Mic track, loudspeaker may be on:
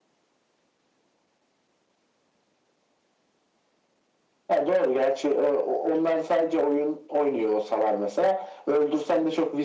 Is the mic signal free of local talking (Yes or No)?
Yes